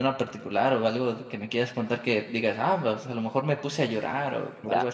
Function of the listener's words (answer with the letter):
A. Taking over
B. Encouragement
A